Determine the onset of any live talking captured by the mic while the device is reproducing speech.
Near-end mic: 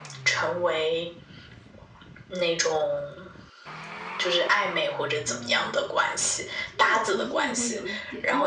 5 s

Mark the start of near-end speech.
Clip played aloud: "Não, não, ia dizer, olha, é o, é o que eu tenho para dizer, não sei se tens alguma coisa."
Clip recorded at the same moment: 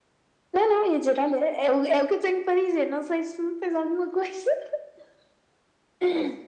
none

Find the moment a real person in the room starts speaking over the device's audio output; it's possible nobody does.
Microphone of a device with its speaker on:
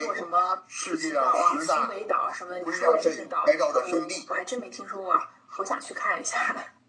none

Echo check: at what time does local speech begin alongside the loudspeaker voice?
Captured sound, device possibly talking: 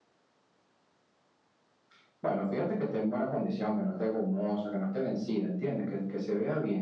none

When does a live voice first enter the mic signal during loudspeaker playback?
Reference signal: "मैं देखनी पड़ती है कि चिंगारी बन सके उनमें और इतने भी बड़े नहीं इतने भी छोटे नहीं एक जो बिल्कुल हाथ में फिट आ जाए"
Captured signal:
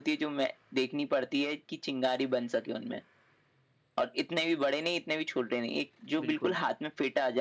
6 s

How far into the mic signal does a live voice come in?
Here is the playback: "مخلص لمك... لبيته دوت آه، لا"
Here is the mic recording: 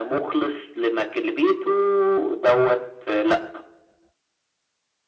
none

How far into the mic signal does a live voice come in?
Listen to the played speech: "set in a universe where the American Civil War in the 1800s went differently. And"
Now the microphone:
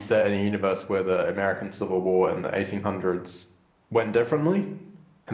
none

